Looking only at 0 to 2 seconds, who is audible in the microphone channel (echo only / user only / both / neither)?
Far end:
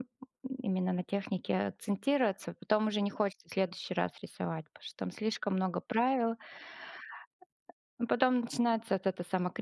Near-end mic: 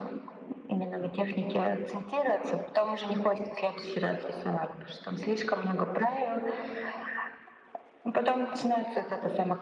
echo only